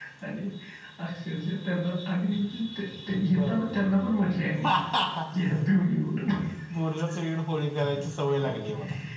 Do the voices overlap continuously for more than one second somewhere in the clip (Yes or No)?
No